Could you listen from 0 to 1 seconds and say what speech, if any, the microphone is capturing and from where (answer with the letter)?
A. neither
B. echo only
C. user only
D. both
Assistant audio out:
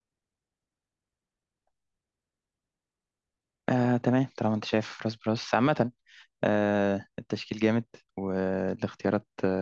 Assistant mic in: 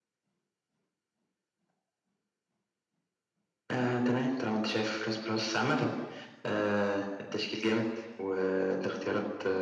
A